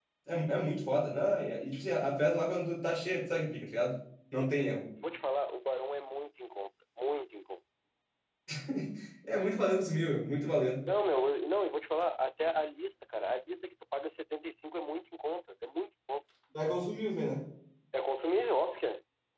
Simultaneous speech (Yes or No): No